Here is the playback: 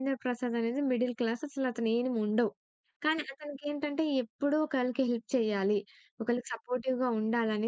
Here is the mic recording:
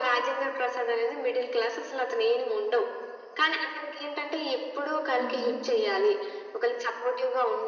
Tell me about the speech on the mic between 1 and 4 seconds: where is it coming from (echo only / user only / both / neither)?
echo only